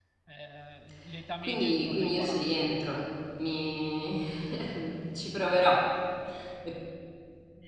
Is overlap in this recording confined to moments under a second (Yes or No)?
No